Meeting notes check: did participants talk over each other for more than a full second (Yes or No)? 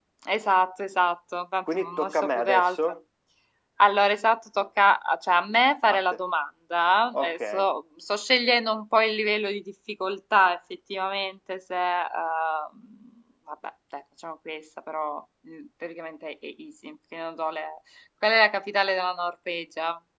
Yes